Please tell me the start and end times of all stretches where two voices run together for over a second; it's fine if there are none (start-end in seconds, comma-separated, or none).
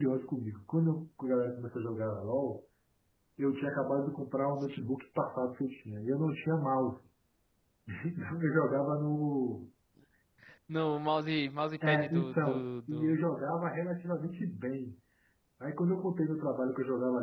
11.8-13.2